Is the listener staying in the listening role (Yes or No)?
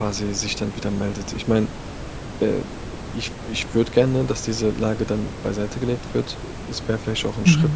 Yes